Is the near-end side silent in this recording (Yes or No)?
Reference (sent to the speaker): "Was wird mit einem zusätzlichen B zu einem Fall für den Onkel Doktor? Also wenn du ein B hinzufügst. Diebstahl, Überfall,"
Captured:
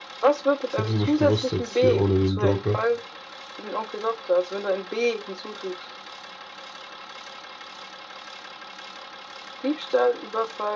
No